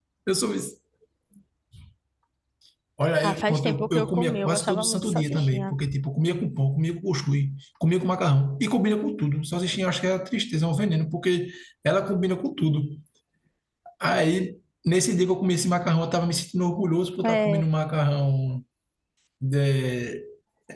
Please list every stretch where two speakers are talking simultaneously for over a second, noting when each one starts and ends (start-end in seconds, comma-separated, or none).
3.2-5.8